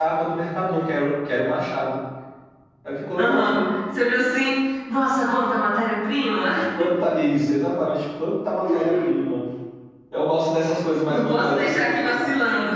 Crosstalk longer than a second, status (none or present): present